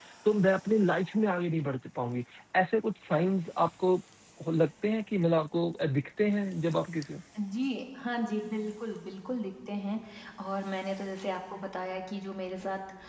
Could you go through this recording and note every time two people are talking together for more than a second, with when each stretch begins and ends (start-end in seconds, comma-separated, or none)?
none